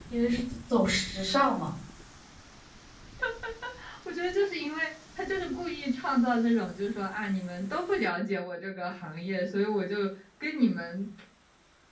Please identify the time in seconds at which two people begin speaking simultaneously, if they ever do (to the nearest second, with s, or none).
none